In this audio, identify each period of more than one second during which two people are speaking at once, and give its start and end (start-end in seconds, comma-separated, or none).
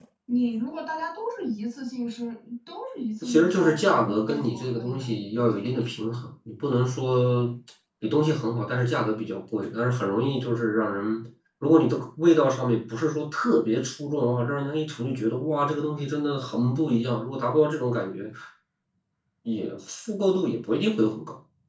3.2-5.0